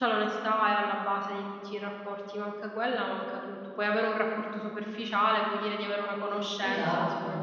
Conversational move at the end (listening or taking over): taking over